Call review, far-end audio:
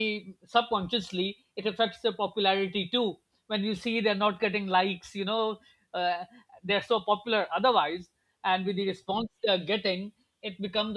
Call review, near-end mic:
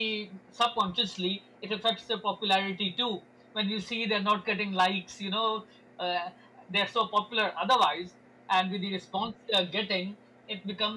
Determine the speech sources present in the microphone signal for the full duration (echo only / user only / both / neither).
echo only